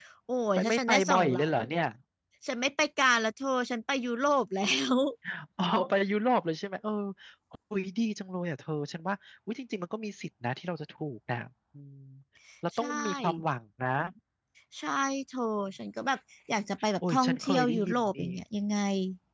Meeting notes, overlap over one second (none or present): present